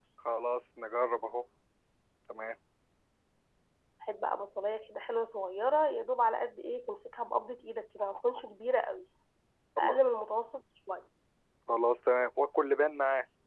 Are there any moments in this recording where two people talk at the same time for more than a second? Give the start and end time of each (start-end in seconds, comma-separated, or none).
none